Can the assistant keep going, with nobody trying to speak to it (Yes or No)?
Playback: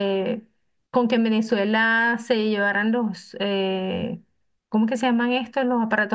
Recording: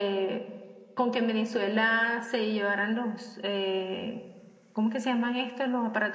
Yes